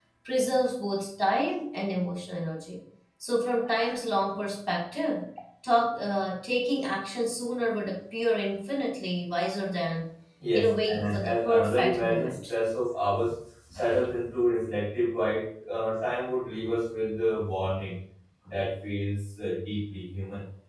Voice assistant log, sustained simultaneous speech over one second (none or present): present